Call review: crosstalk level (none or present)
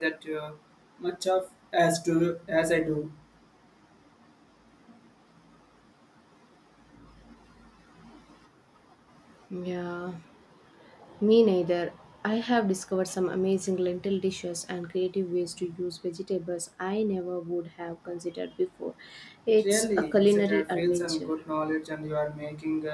present